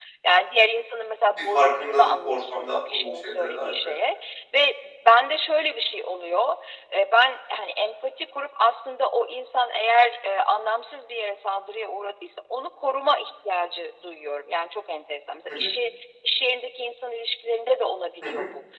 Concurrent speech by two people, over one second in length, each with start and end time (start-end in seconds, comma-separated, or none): 1.4-3.9